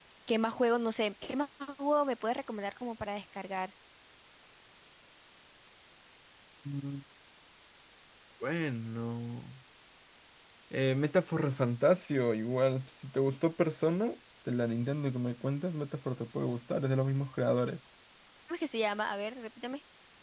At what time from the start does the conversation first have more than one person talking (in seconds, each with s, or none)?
none